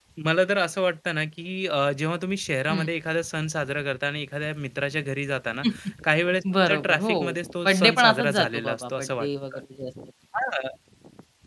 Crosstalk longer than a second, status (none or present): present